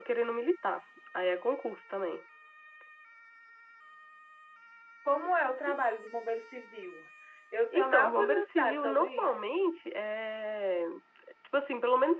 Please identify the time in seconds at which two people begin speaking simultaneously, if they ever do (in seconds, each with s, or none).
7.7 s